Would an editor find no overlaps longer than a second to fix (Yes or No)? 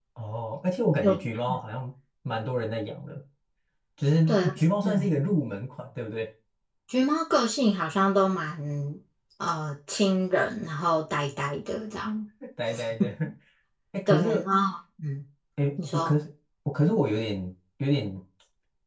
Yes